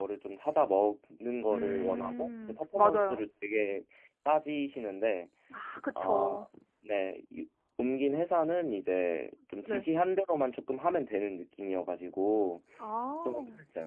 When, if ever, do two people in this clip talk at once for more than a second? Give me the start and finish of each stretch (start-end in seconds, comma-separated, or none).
1.5-3.2